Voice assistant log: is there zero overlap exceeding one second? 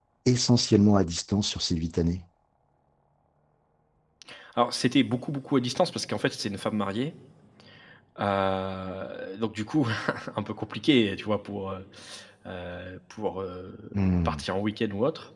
Yes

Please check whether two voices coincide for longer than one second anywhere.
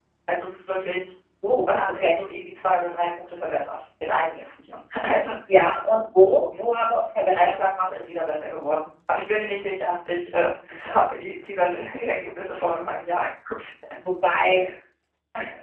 No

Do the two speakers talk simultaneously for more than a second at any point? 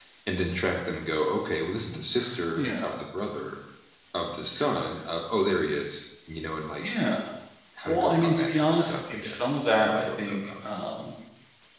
Yes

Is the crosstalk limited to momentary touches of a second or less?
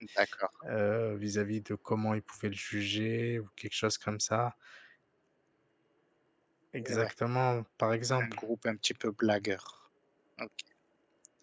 Yes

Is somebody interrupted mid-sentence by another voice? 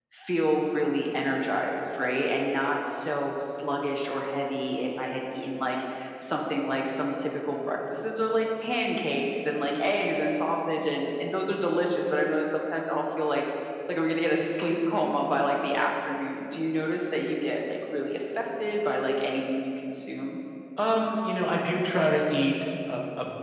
No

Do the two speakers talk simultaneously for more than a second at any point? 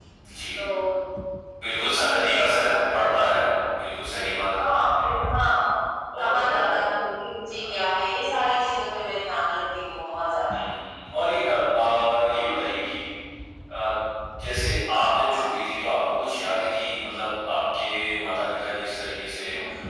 Yes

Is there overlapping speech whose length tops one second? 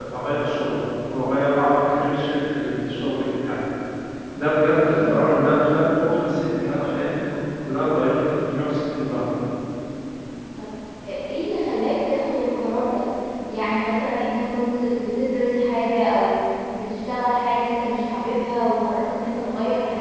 No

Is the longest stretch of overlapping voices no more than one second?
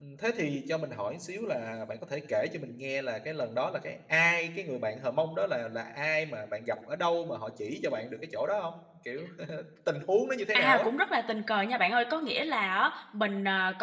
Yes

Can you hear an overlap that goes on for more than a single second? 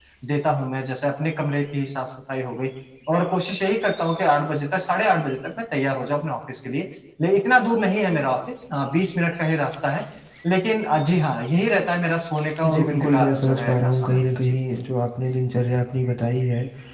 Yes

